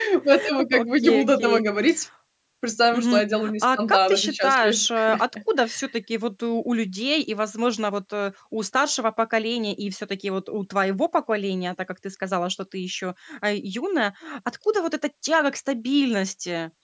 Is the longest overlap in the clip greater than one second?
Yes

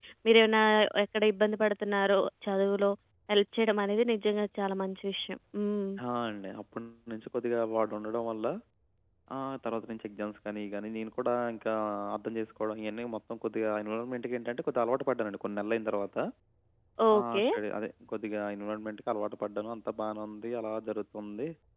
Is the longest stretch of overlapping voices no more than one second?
Yes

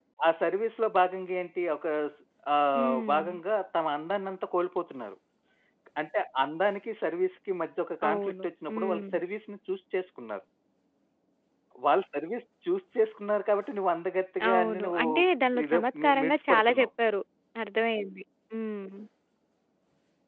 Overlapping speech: Yes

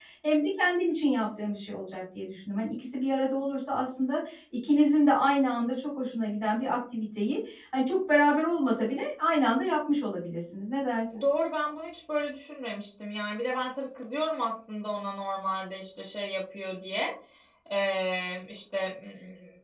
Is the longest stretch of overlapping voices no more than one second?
Yes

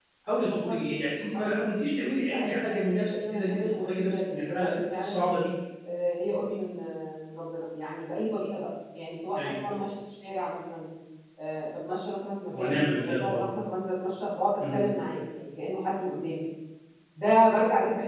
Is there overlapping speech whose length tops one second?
Yes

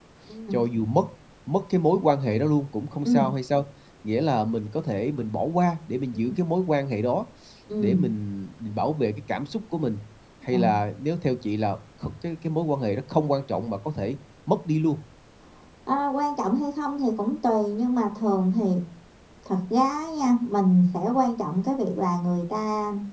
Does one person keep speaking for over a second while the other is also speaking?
No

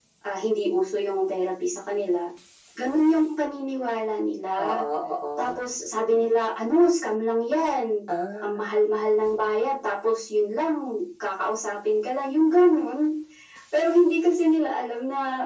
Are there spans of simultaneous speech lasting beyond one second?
No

